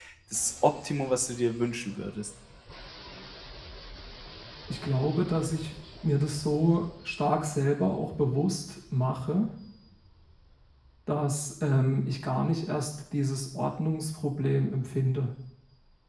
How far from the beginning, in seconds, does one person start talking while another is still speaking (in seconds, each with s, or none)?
none